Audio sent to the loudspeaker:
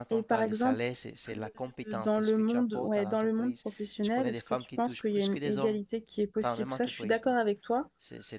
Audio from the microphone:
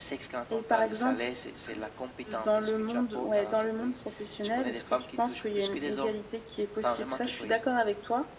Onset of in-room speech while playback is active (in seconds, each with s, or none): none